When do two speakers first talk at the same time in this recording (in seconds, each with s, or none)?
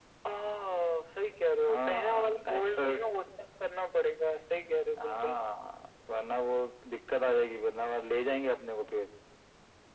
1.6 s